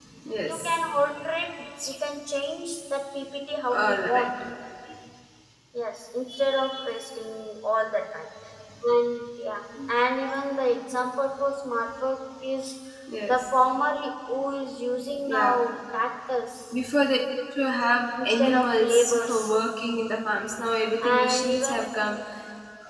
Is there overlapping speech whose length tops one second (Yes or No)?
Yes